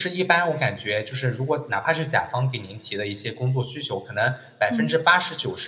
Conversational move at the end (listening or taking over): listening